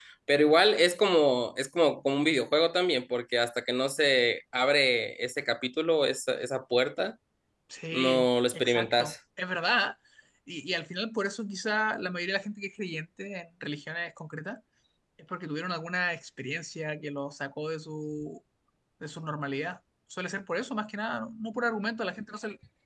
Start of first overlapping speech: 8 s

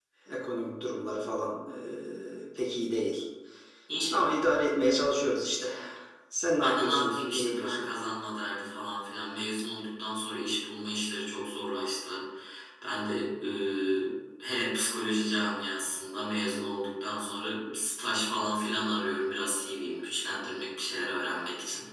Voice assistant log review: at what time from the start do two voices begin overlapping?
7 s

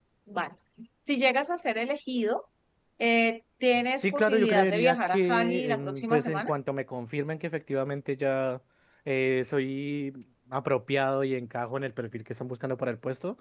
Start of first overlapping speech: 4 s

